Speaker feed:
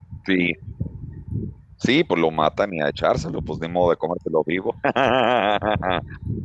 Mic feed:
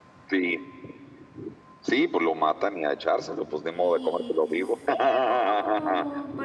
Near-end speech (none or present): present